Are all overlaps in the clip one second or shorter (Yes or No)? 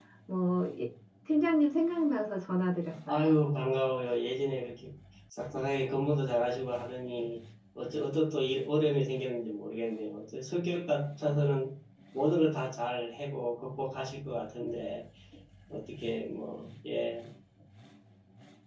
Yes